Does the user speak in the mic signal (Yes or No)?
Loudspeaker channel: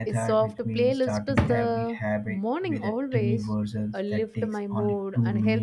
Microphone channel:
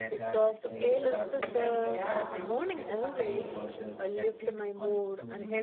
Yes